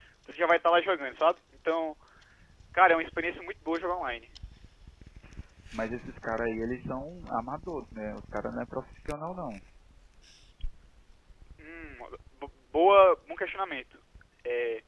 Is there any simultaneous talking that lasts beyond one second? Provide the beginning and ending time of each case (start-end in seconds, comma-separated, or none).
none